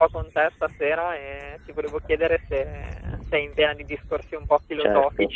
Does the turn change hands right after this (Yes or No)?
Yes